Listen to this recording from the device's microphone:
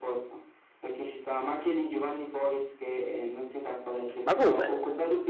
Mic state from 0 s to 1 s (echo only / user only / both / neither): echo only